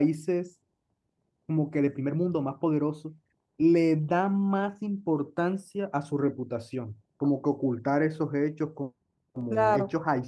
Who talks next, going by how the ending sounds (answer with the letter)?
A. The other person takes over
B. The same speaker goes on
B